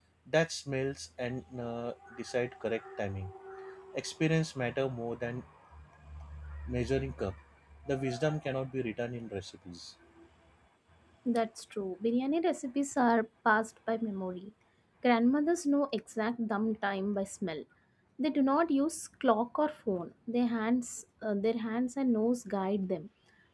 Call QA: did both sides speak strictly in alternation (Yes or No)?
Yes